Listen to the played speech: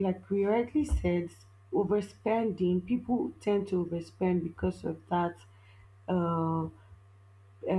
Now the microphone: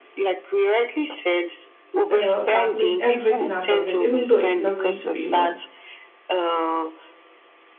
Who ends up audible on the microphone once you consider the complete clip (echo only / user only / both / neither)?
both